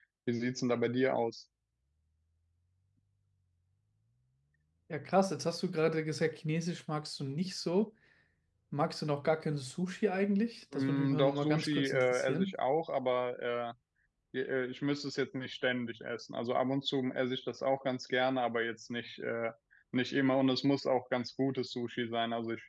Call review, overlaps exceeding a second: present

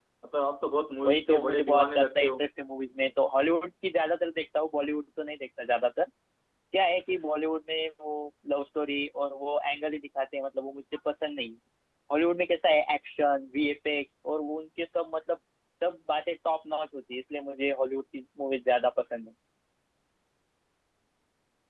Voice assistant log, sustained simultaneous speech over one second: present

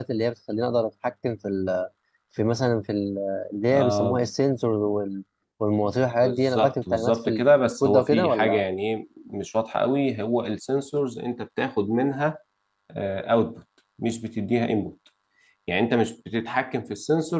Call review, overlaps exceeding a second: present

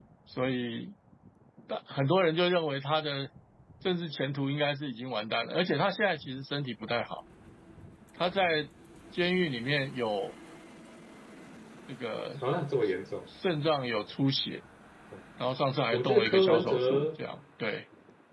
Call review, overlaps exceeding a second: present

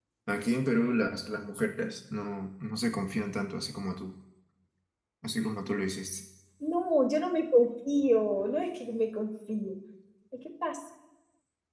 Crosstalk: none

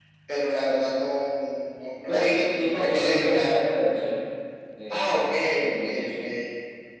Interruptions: present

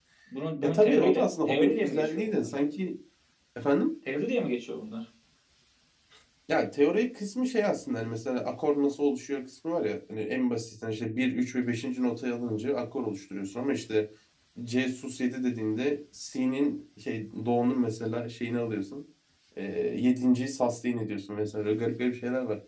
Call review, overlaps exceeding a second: present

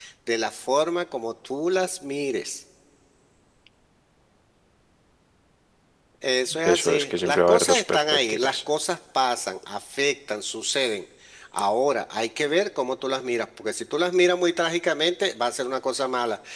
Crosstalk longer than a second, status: present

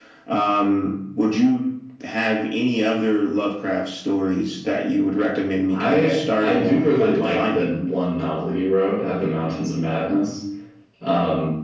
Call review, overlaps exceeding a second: present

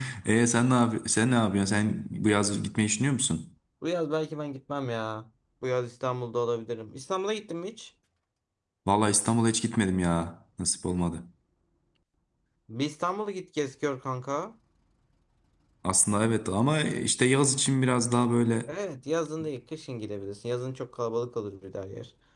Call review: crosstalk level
none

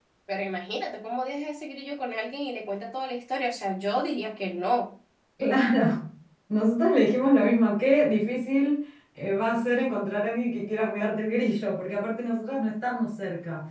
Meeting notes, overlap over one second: none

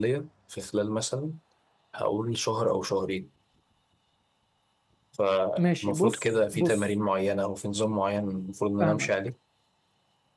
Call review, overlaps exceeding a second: present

